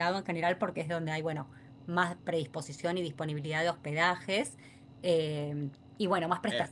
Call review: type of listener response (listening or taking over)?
listening